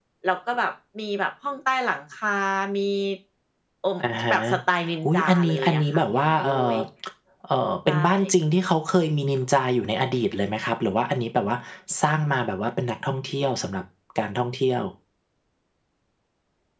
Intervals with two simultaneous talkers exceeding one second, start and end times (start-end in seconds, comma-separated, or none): 5.0-6.7